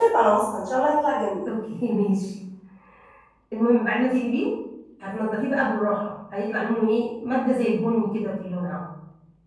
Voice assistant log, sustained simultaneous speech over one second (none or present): none